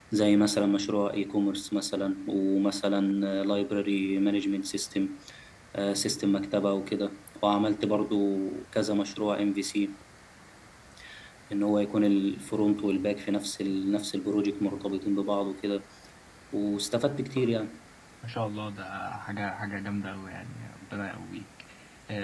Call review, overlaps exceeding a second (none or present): none